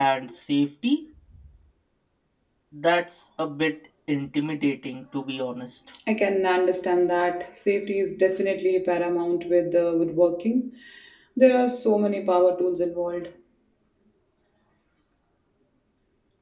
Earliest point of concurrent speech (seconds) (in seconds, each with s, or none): none